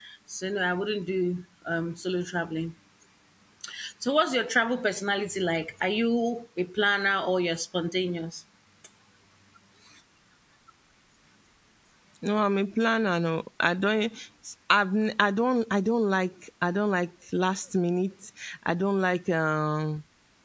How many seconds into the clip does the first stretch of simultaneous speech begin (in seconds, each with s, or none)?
none